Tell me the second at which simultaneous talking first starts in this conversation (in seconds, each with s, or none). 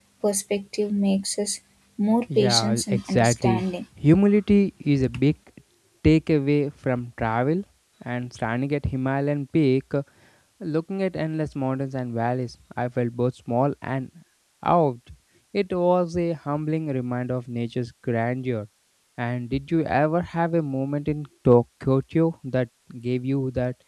2.4 s